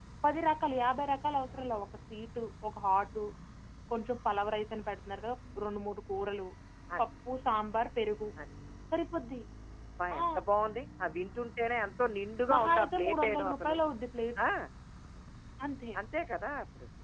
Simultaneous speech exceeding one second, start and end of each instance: 12.5-13.8

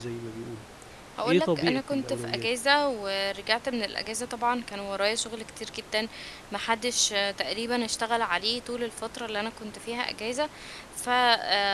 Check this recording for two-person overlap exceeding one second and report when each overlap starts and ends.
1.2-2.5

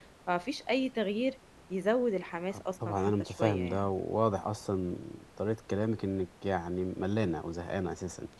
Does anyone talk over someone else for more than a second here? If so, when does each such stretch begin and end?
2.5-3.9

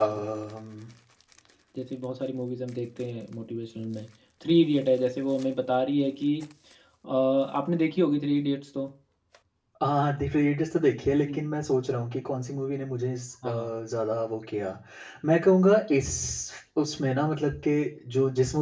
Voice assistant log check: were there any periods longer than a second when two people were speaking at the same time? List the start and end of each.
none

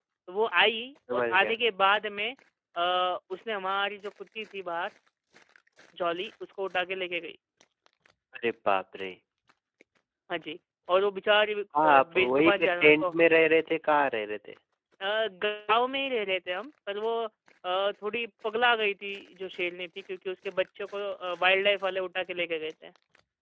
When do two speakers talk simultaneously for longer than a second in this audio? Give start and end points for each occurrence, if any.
11.8-13.1

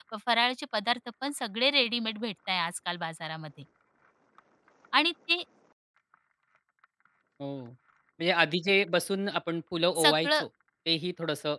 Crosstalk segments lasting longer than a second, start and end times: none

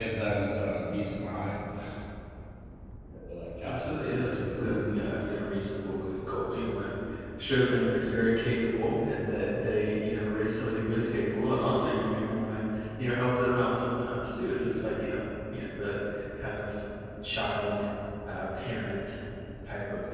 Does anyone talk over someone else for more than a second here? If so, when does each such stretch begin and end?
3.6-5.5

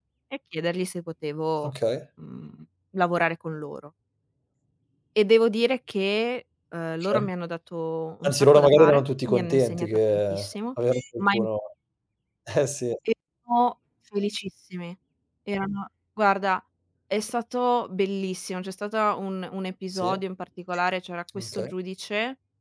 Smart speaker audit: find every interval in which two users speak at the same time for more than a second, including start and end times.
8.2-10.2

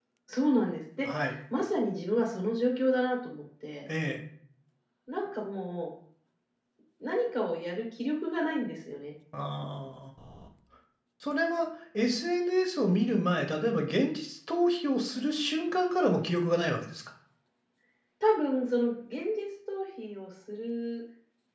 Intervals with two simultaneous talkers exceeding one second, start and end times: none

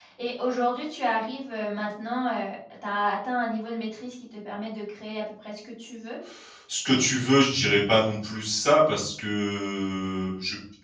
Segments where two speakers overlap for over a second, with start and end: none

